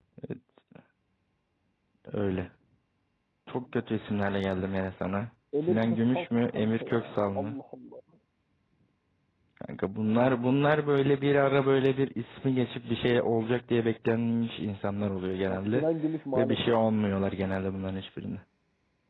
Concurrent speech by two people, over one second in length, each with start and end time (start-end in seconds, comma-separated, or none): 5.6-7.6